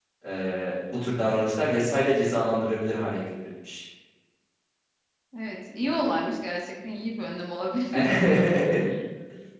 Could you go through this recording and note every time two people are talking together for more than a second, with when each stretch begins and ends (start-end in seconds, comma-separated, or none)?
none